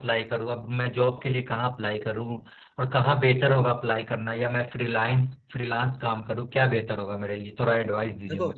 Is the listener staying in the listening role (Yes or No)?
No